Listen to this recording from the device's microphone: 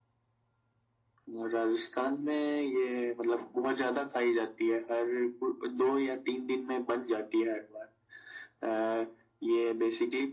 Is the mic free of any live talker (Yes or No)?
Yes